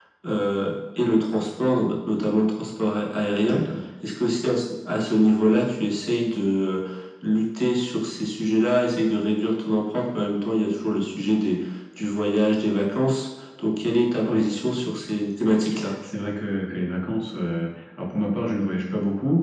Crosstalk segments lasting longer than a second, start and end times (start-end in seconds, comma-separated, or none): none